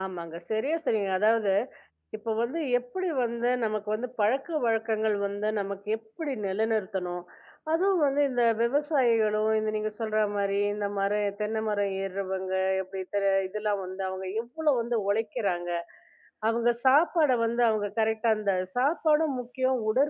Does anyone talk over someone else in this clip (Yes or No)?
No